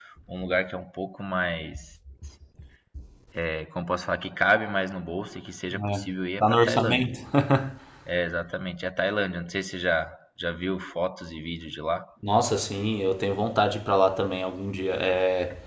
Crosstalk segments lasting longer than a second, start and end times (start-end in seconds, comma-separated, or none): 5.9-7.2